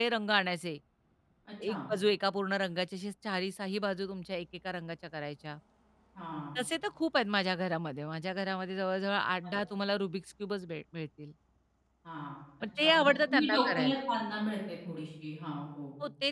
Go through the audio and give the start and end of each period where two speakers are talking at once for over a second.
12.8-14.0

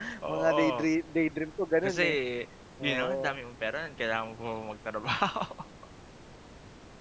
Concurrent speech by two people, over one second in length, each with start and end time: none

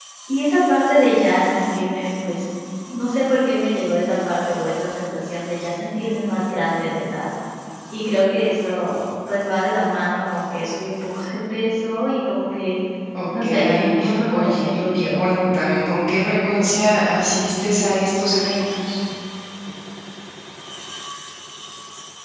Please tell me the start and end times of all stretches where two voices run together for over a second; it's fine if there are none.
13.4-15.2

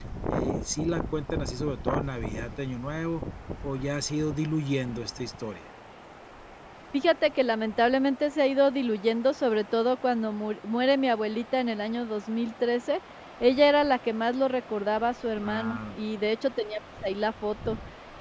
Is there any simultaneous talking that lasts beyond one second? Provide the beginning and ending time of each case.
none

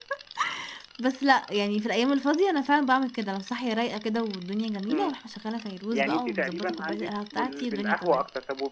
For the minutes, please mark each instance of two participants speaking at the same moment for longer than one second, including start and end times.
5.9-8.2

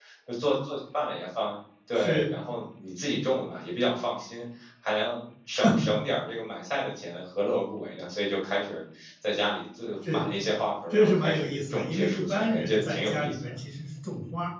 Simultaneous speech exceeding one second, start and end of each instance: 10.9-13.6

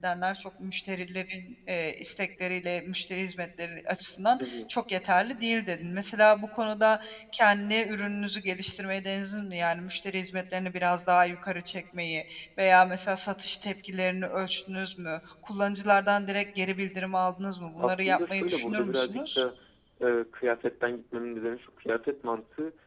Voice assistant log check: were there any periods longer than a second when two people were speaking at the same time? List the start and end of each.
17.8-19.4

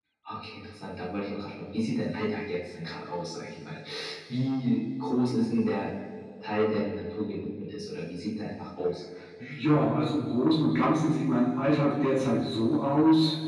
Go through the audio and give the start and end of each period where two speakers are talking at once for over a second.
none

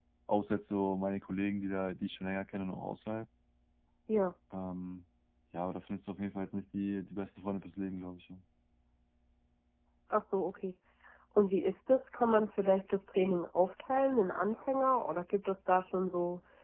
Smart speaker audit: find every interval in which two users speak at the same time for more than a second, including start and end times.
none

